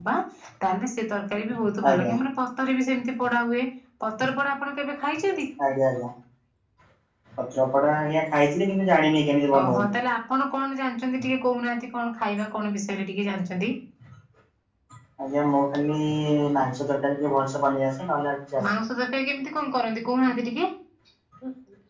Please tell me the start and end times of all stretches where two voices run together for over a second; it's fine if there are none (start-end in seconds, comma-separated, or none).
none